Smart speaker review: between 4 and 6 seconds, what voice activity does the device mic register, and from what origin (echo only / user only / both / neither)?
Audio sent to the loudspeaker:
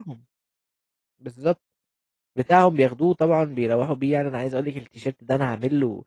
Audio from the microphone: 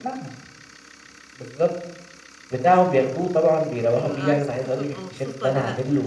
both